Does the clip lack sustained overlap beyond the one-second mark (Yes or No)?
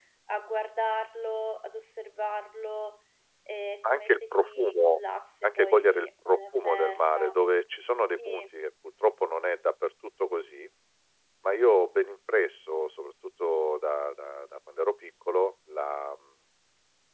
No